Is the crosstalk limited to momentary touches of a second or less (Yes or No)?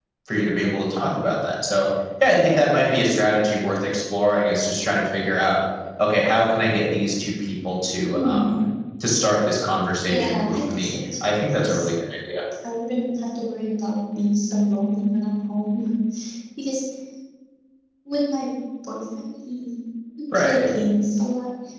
No